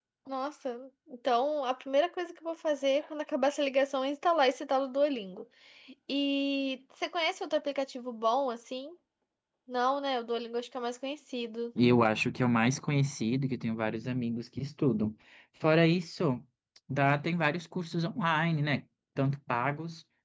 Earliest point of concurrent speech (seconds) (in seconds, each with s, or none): none